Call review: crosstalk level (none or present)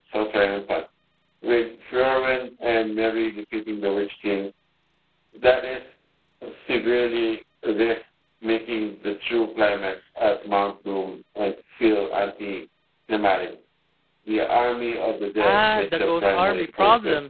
present